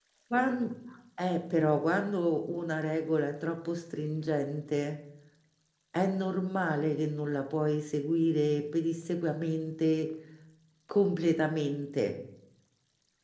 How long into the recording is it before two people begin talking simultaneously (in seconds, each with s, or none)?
none